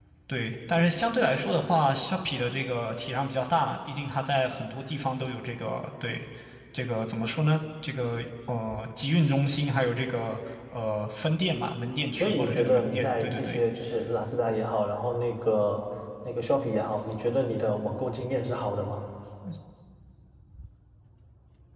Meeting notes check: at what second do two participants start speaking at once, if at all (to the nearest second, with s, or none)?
12 s